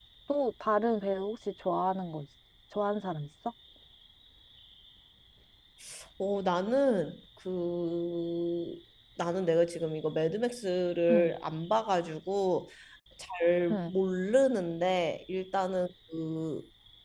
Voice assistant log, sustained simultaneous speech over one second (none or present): none